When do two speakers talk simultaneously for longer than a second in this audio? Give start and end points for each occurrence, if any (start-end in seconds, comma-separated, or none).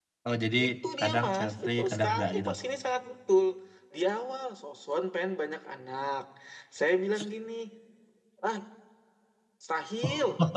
1.0-2.5